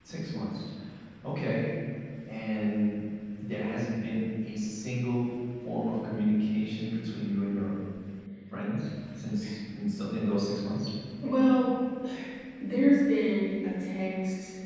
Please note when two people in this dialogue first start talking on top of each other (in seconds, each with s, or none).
none